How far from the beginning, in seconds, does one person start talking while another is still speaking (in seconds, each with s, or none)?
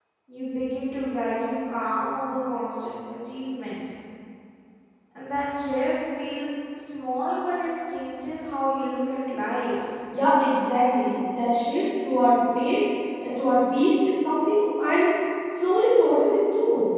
none